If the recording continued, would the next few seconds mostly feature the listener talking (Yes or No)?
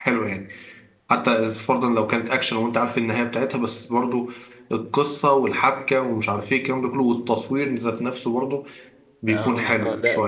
Yes